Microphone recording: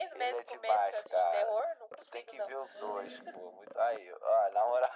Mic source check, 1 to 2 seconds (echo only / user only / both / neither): echo only